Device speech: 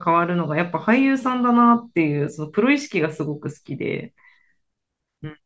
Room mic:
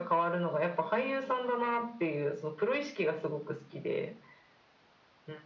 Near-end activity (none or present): none